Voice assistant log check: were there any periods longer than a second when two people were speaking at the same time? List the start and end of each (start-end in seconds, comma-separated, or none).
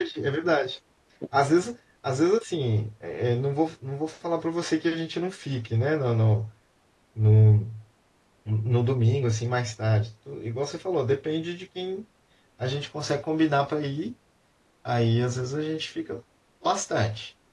none